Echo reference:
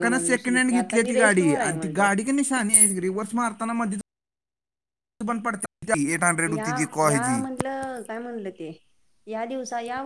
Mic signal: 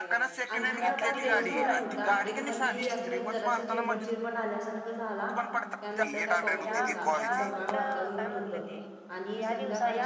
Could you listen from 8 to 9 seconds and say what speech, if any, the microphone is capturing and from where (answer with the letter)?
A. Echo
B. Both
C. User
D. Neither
B